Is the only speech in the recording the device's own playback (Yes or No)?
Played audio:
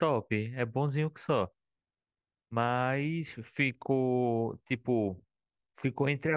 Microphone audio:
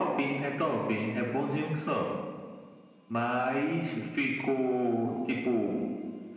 Yes